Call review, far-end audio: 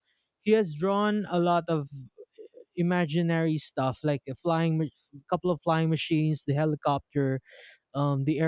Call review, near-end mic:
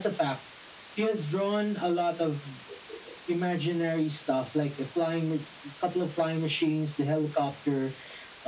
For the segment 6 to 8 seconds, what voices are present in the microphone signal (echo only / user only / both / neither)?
echo only